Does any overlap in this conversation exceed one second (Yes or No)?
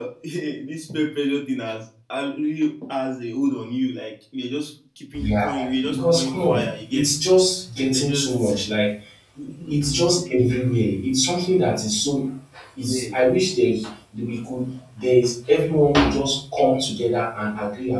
Yes